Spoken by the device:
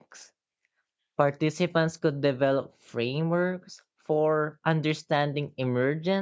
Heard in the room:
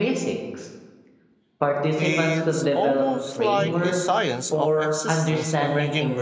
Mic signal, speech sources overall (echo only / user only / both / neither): both